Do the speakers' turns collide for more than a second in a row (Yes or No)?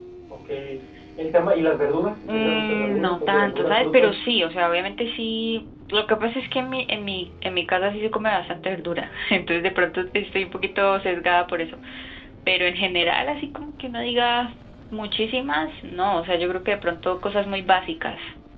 Yes